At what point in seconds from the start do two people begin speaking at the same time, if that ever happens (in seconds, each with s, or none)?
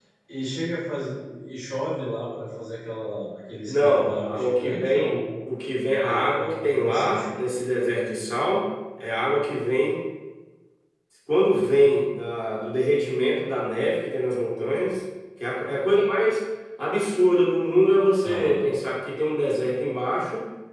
3.7 s